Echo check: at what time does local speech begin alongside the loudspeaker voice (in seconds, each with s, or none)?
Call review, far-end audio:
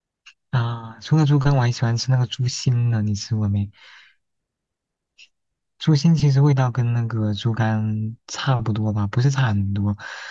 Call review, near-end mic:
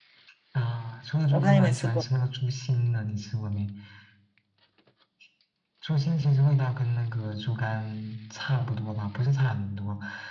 1.3 s